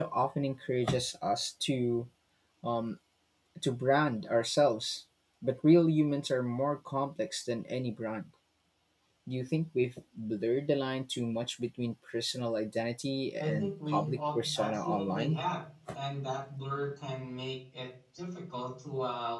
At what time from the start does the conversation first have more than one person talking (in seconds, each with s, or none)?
13.4 s